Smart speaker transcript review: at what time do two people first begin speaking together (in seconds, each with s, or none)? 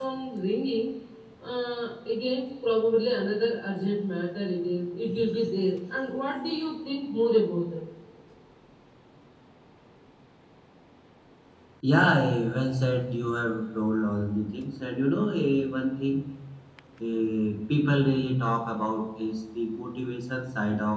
none